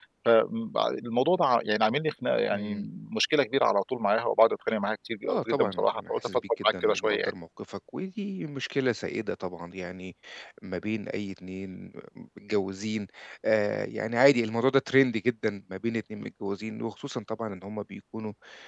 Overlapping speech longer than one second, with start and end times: 5.3-7.3

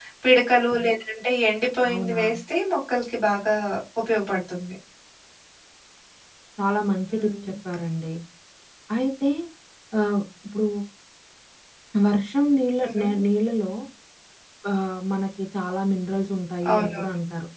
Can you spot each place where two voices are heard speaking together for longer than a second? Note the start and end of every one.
none

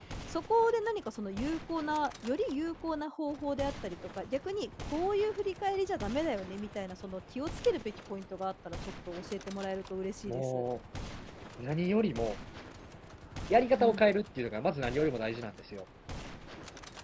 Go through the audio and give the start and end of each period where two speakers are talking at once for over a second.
none

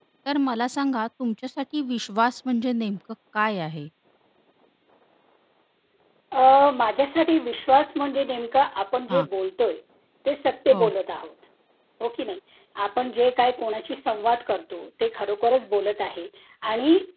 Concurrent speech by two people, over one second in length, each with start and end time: none

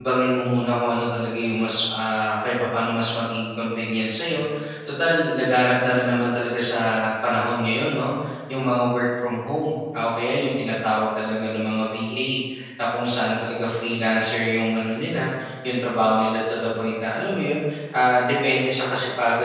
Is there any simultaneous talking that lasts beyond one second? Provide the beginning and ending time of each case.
none

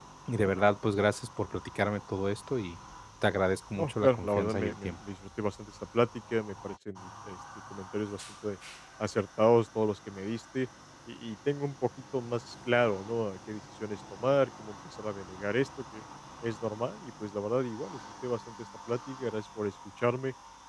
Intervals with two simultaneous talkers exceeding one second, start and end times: 3.8-5.0

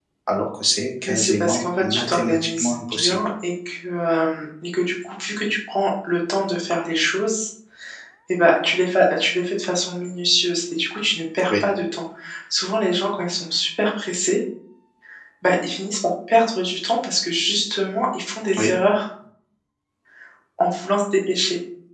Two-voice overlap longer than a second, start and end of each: 1.1-3.1

